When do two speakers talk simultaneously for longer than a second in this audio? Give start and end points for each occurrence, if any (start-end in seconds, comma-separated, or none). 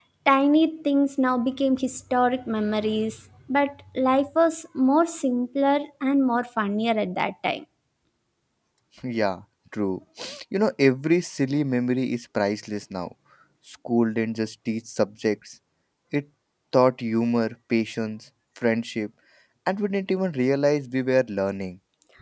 none